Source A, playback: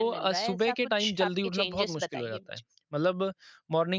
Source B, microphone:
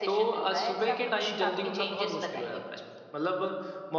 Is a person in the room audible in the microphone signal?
No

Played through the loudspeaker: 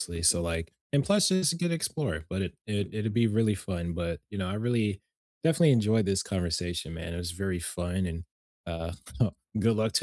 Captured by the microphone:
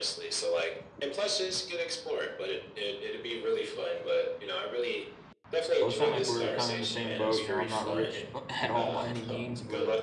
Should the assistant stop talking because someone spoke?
Yes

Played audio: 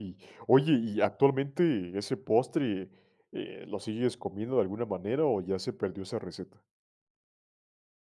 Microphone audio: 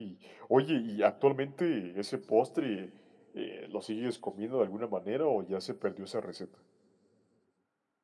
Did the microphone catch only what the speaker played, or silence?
Yes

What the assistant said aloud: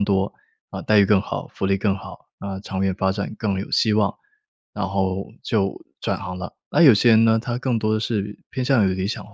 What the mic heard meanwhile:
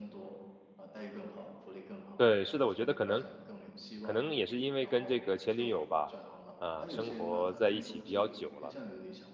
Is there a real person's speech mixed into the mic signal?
Yes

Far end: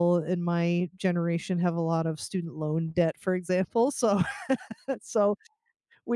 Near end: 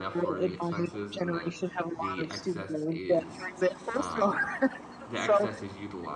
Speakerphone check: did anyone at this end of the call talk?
Yes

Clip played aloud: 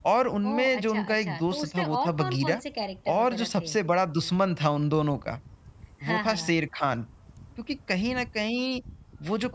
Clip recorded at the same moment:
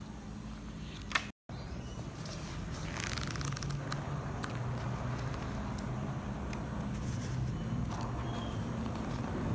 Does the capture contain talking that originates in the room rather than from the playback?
No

